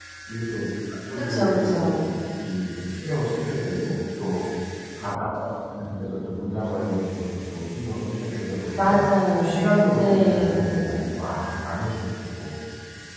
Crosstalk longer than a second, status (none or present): present